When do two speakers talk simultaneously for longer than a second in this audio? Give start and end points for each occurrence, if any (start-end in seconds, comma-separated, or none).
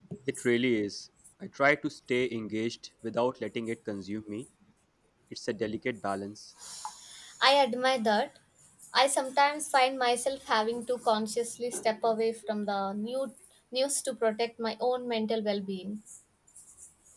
none